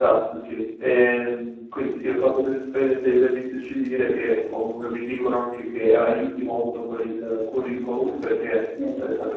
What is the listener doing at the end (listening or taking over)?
listening